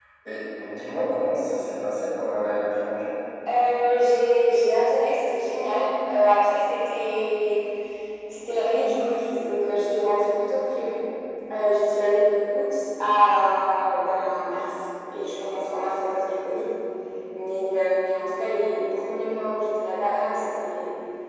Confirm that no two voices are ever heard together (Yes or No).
Yes